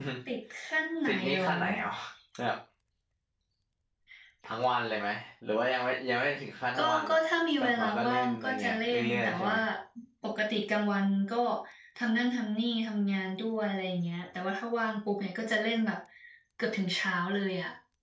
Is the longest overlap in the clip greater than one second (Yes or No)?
Yes